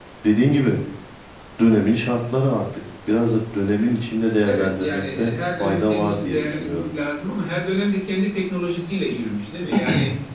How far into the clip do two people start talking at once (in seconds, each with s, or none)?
4.4 s